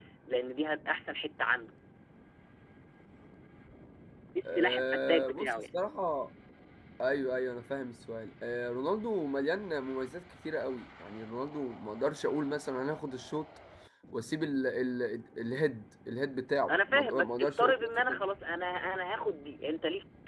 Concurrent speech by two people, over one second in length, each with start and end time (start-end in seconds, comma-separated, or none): 4.4-5.7, 16.7-18.2